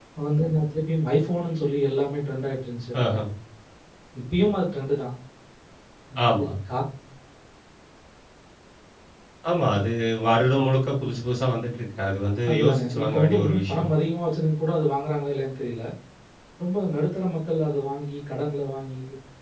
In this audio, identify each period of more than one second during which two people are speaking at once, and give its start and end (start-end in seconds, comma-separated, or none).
12.5-13.9